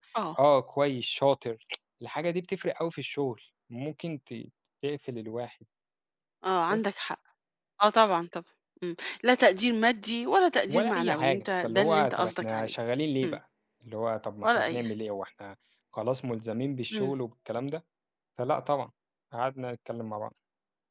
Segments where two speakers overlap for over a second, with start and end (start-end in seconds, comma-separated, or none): 10.7-12.7